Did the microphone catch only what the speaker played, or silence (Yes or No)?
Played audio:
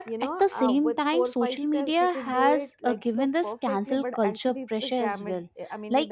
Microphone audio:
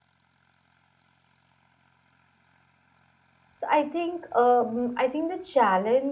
No